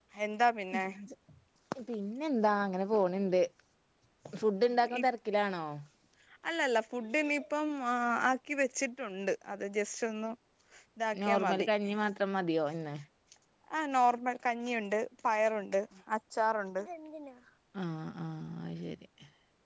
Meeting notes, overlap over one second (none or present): none